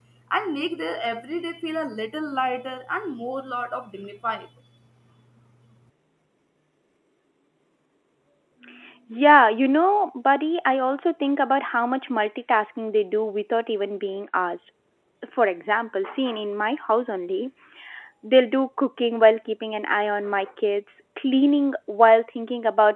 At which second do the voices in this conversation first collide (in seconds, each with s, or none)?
none